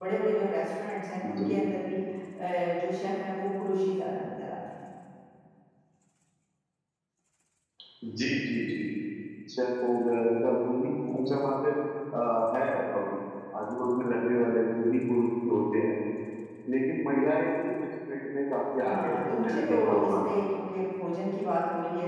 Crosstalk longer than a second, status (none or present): present